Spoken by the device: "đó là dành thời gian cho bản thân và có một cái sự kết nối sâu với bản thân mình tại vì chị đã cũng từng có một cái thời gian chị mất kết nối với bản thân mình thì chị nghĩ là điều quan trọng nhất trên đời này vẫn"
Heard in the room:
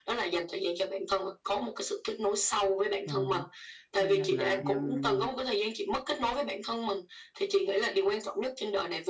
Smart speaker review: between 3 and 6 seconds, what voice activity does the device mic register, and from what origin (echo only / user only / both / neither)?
both